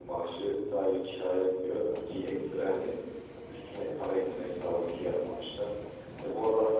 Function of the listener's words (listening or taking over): listening